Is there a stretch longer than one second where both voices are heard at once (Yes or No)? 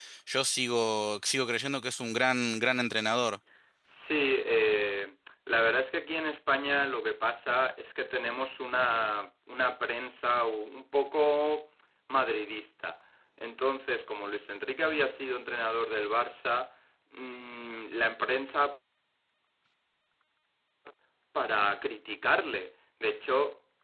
No